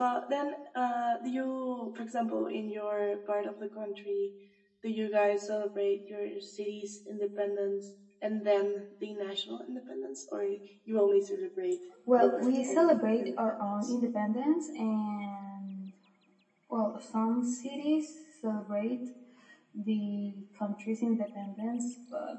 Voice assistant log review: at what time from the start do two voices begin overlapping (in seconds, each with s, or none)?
12.1 s